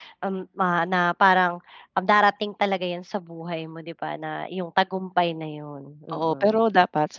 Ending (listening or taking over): taking over